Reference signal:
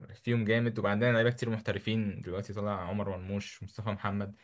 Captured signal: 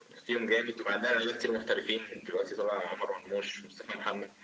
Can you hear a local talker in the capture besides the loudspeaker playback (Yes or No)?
No